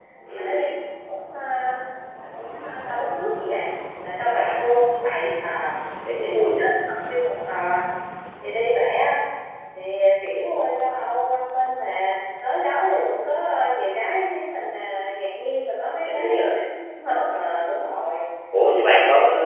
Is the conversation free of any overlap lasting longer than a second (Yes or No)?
Yes